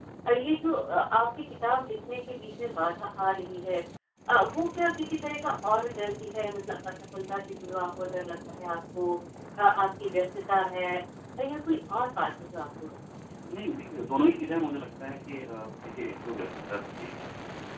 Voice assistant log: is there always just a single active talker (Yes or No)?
Yes